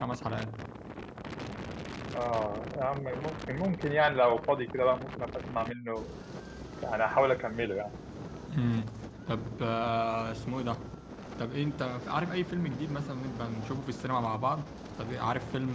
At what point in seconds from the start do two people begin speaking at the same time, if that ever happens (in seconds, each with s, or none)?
none